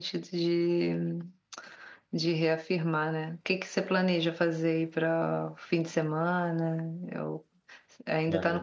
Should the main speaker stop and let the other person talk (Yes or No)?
No